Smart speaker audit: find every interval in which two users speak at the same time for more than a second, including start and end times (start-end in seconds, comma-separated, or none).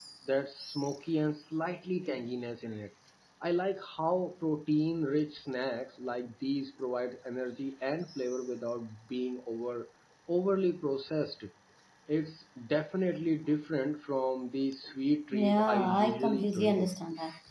15.3-16.9